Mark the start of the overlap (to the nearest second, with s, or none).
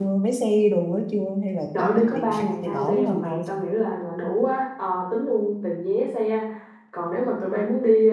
2 s